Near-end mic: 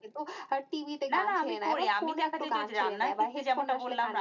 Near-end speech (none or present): none